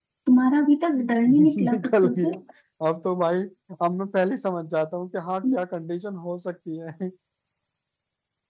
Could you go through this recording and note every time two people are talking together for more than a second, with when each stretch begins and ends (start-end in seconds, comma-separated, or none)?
1.0-2.3